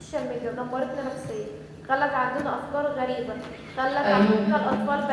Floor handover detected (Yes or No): No